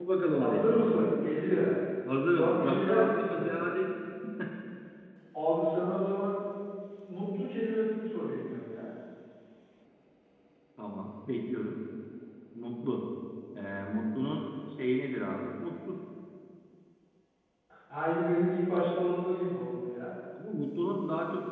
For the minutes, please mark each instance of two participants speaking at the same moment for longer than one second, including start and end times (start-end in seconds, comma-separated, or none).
2.2-3.5